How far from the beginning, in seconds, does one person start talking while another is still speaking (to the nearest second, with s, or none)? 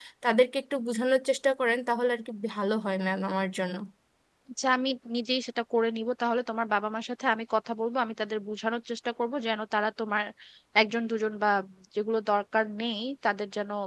none